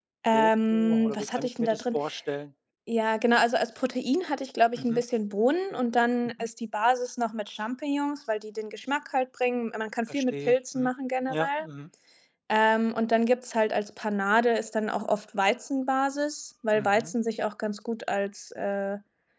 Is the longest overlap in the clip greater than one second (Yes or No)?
Yes